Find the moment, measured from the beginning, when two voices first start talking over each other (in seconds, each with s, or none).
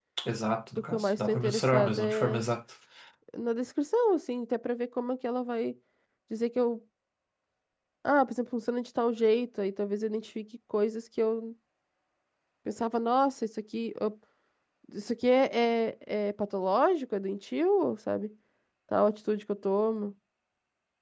0.8 s